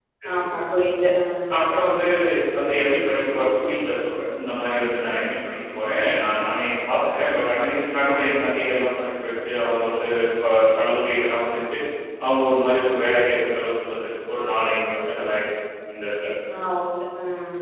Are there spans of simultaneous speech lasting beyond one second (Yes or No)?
No